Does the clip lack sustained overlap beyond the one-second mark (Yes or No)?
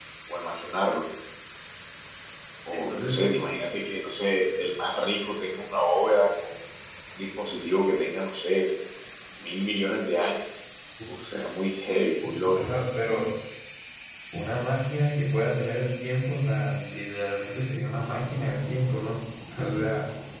Yes